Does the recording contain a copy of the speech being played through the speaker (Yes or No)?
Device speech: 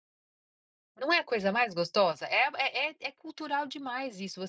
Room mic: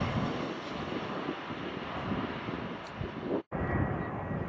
No